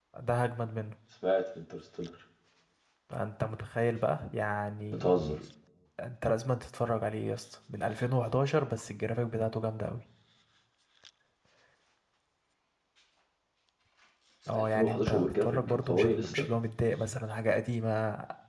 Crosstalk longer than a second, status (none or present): present